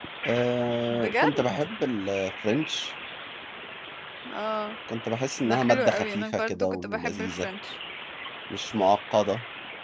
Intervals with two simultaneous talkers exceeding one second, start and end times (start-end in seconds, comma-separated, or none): 5.4-7.5